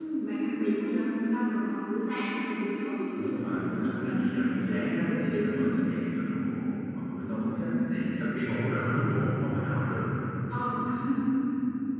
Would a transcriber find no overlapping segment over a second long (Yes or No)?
No